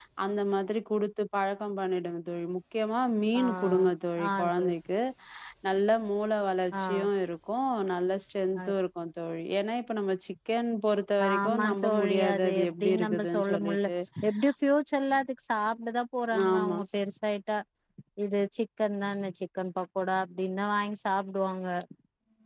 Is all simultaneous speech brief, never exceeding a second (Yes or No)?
No